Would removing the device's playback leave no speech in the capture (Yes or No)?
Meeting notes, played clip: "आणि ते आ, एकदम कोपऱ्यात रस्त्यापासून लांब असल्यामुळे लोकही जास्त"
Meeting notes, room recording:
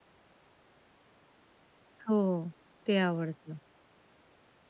No